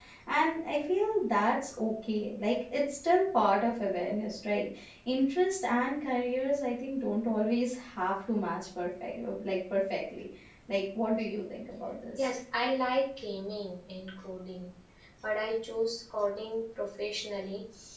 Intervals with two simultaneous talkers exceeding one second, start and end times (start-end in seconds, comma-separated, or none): none